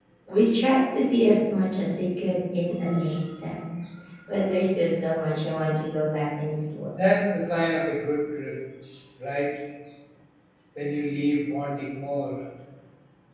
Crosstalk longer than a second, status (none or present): none